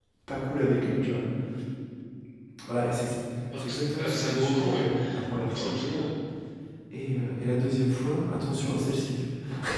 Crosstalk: present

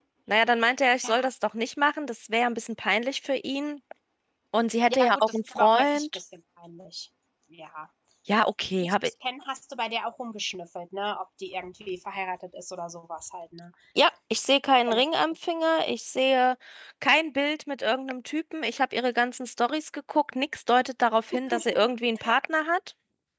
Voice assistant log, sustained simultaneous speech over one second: present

